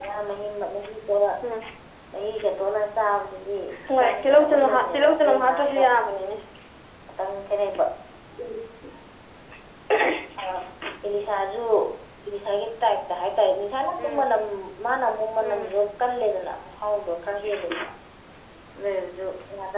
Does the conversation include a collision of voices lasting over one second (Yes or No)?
Yes